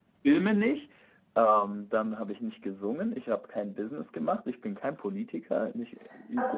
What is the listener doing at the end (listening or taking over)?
taking over